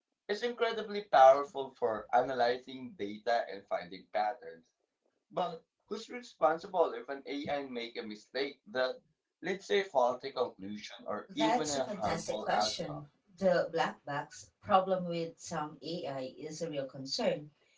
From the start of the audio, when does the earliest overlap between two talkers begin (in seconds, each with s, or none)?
11.3 s